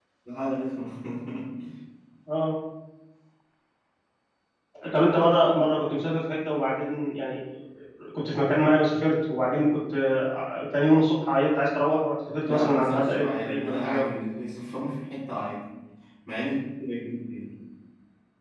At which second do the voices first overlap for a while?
12.4 s

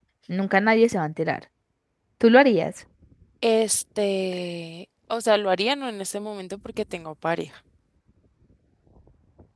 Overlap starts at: none

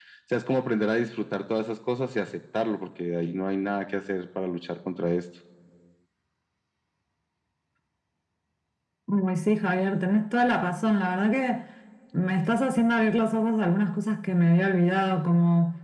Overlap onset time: none

